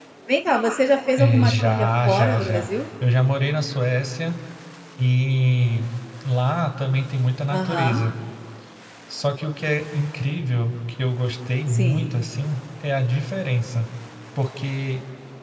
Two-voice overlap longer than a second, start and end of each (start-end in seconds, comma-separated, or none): 1.2-2.7